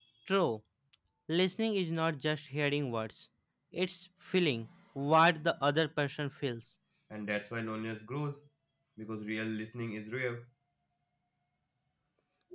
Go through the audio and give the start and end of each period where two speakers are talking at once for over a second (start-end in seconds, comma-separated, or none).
none